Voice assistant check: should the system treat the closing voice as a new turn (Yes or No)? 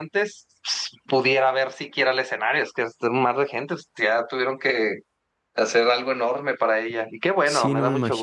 Yes